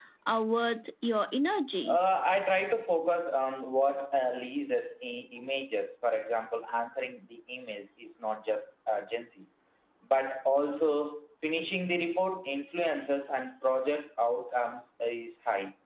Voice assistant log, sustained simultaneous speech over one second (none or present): none